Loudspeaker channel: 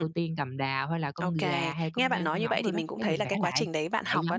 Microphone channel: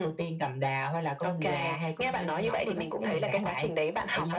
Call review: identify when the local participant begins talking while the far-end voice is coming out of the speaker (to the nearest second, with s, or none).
none